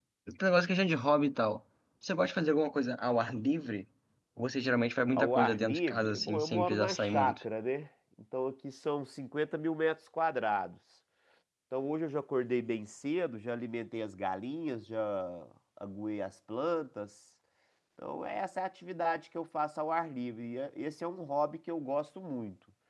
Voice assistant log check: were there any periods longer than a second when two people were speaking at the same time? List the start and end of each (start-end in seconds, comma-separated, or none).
5.1-7.4